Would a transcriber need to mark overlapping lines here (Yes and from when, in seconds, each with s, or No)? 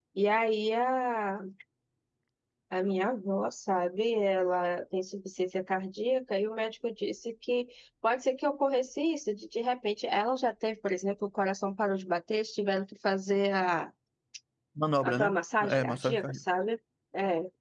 Yes, from 15.0 s